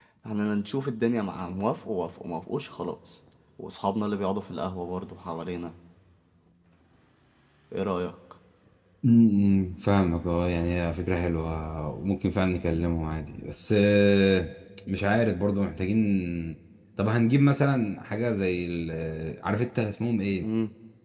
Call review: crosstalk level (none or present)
none